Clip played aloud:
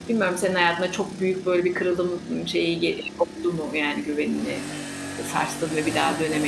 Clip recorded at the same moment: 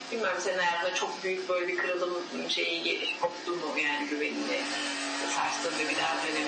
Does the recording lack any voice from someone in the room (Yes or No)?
Yes